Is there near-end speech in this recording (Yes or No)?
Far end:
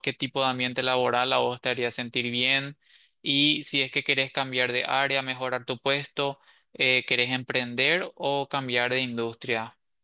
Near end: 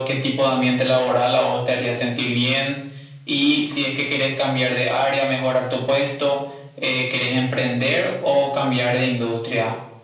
No